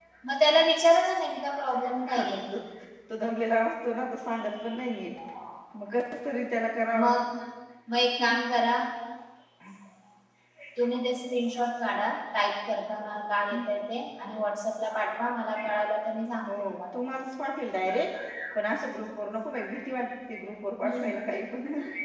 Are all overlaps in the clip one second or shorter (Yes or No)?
Yes